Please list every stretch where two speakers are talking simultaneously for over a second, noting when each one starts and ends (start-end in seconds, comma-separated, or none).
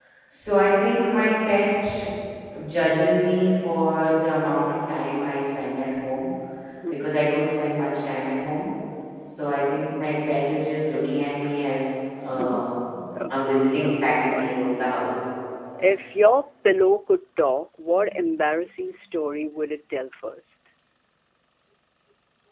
13.3-14.6